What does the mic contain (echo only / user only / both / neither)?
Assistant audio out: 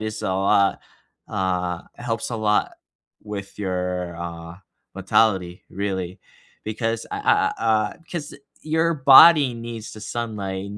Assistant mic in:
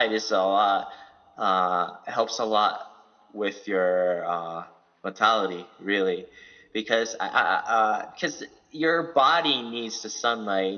echo only